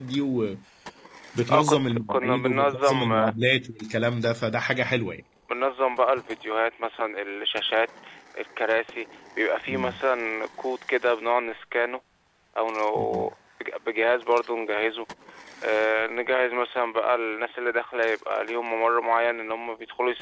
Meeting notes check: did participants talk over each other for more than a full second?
Yes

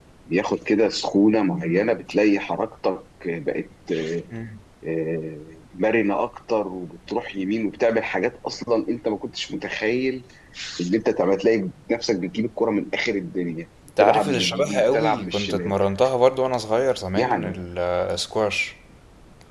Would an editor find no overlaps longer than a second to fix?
No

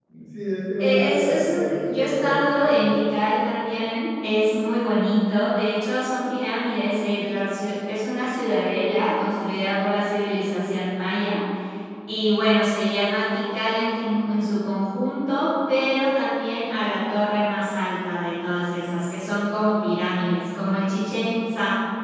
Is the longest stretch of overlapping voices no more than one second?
No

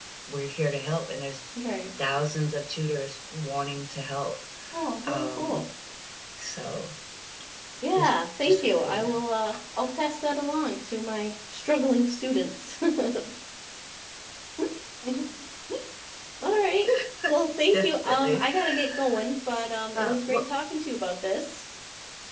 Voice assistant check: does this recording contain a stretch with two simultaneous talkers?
Yes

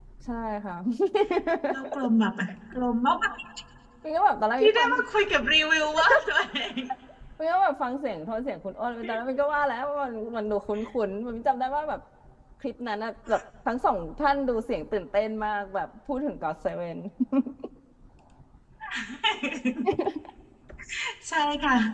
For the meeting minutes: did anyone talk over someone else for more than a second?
No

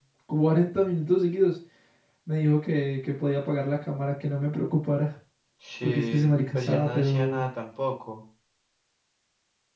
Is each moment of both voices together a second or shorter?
No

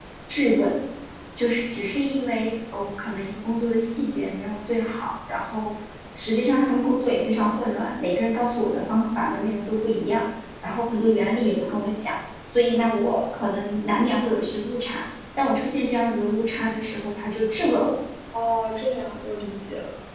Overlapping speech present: No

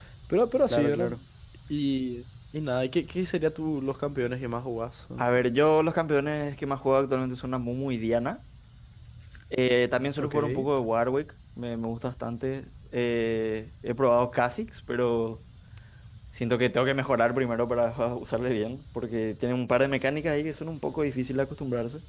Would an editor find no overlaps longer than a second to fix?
Yes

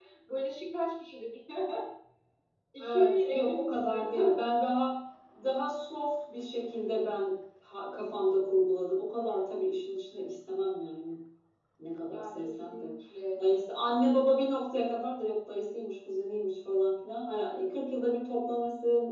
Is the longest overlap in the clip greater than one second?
Yes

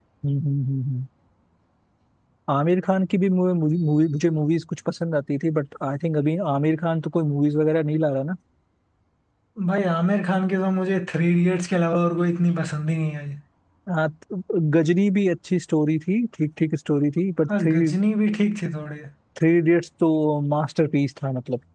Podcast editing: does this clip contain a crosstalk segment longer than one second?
No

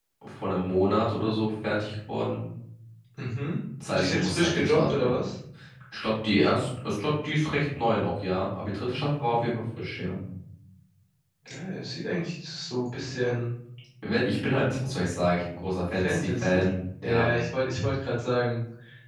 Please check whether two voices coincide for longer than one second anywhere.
Yes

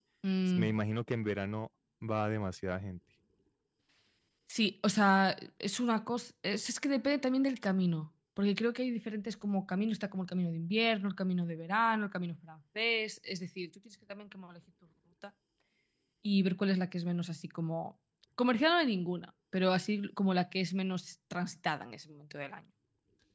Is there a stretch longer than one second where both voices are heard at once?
No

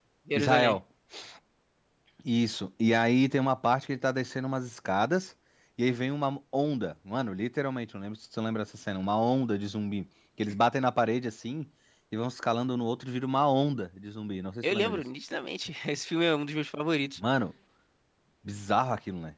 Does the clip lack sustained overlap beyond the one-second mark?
Yes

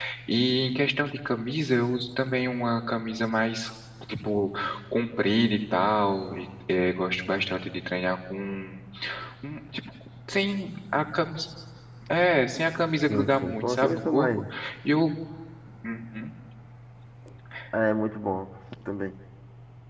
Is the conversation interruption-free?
No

